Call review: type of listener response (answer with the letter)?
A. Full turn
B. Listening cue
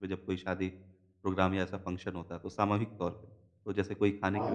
B